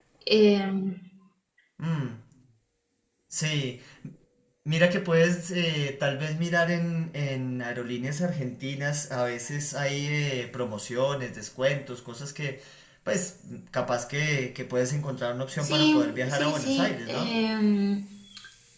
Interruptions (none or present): present